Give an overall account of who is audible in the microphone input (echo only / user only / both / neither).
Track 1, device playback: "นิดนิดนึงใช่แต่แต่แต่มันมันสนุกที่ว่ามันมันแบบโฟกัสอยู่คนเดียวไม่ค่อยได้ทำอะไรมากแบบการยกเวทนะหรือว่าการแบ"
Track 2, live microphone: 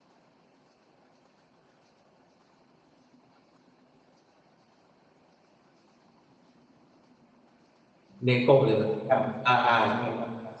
user only